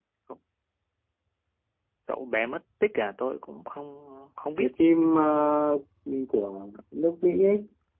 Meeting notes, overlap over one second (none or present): none